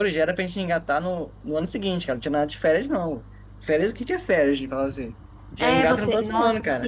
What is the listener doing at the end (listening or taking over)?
taking over